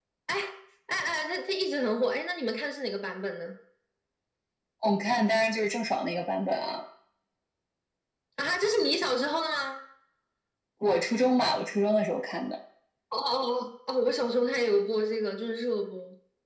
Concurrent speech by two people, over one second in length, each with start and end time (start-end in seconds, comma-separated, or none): none